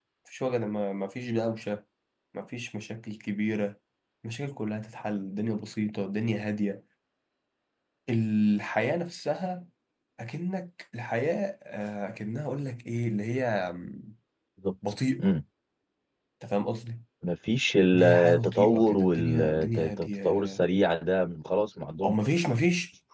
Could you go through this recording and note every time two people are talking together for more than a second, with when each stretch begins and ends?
17.9-20.6

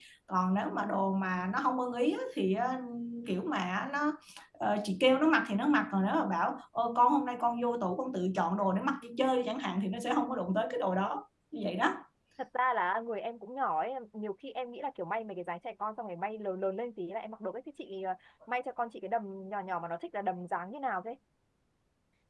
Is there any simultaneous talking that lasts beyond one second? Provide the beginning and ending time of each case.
none

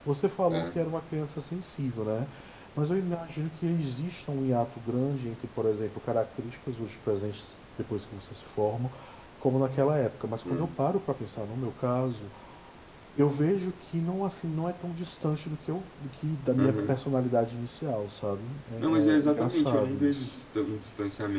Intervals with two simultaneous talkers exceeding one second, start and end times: 18.8-20.3

